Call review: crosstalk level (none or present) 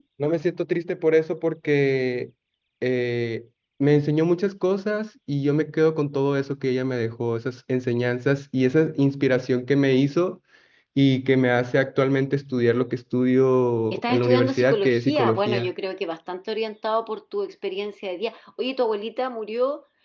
present